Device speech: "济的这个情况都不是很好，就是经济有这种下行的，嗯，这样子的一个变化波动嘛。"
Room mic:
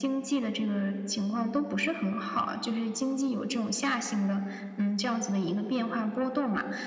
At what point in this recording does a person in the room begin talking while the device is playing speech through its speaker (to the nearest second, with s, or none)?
none